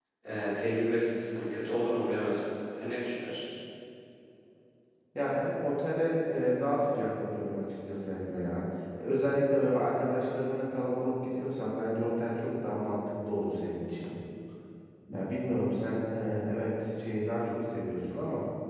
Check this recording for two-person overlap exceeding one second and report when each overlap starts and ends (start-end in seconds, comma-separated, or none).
none